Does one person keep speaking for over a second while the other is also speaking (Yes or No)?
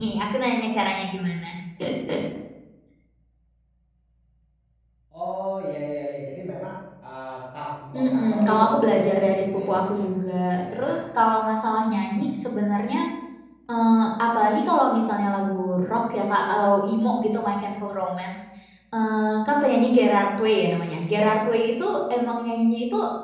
Yes